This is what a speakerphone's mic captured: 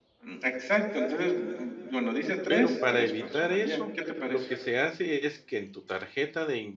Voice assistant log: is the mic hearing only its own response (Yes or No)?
No